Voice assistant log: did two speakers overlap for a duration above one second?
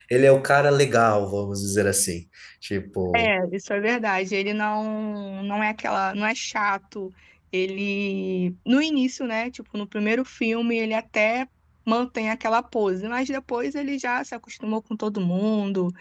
No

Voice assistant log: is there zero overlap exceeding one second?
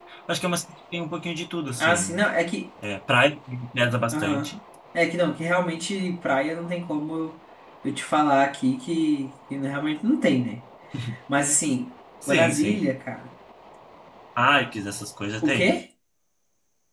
Yes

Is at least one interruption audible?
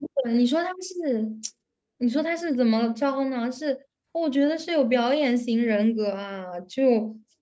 No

